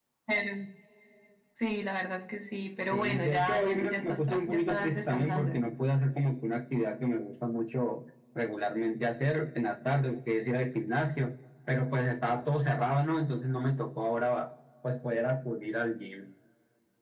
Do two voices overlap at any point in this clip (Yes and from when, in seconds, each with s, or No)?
Yes, from 2.9 s